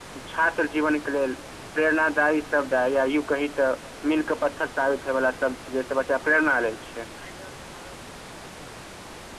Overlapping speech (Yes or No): No